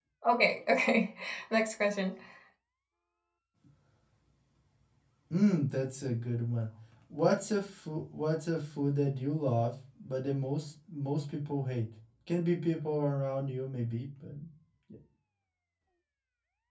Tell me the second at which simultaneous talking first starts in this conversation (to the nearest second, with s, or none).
none